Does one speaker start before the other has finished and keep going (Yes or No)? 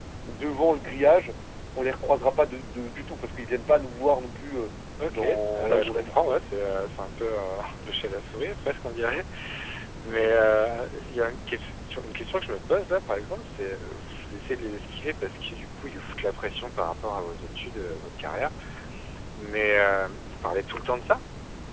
Yes